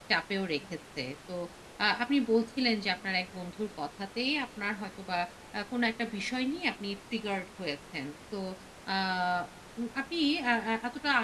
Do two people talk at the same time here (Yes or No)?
No